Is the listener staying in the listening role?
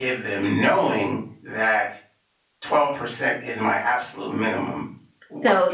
No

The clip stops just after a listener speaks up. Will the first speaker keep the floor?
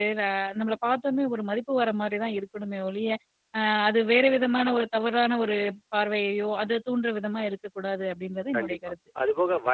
No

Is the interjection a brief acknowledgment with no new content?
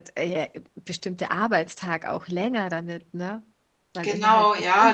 No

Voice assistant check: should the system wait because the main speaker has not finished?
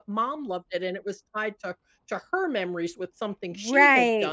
Yes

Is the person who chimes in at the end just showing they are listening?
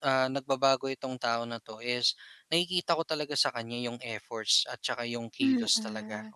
No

